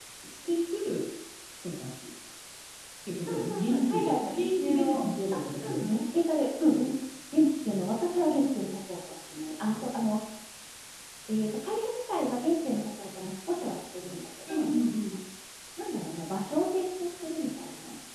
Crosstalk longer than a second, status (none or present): present